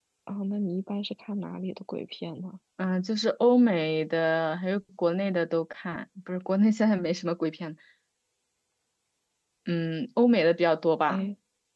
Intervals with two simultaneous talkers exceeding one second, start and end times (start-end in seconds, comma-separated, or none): none